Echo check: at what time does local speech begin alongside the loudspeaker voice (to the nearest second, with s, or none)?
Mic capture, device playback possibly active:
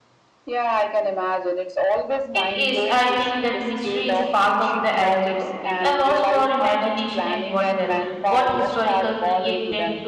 2 s